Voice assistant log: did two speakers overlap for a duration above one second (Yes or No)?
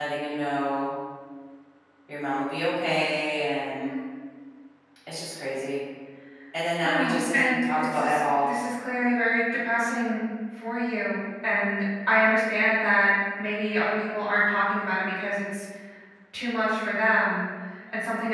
Yes